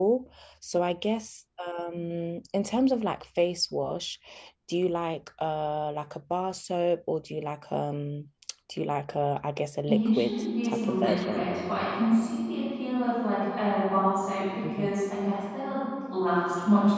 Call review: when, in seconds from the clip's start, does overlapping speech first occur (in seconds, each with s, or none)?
9.9 s